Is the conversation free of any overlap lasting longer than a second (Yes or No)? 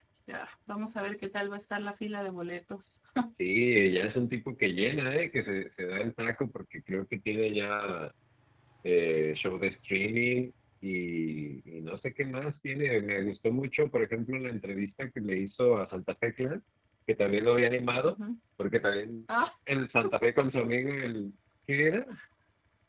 Yes